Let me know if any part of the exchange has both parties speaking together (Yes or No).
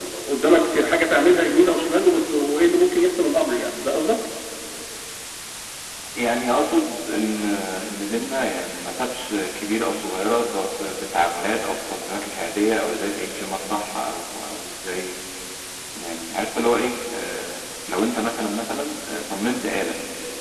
No